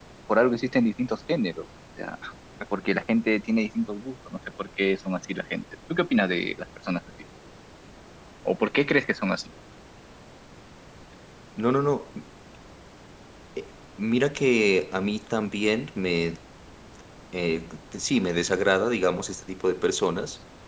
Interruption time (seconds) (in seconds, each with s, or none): none